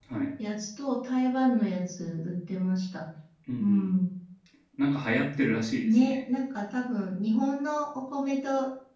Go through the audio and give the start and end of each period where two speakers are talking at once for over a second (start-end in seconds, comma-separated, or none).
none